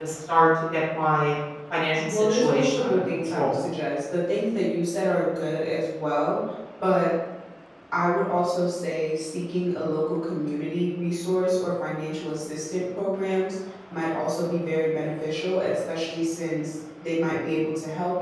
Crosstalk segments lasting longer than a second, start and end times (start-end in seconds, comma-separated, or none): 2.0-3.7